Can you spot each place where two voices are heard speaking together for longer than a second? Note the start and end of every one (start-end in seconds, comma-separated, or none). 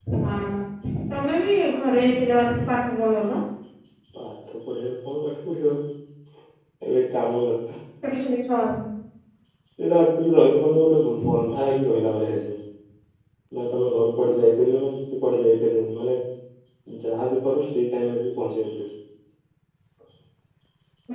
none